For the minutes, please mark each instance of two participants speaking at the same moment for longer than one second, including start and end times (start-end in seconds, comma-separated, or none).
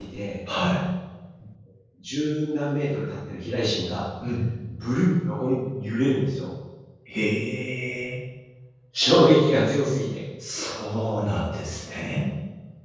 none